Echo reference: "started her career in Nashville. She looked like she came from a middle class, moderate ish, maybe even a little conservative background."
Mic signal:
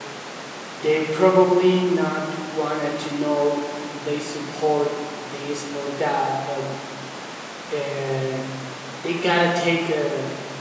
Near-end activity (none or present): present